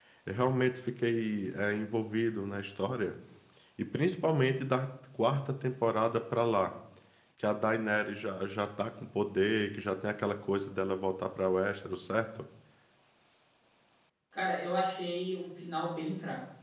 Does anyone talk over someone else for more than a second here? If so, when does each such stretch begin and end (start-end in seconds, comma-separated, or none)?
none